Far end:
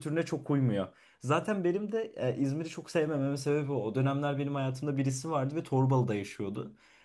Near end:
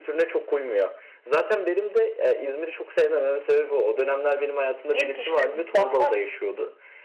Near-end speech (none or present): present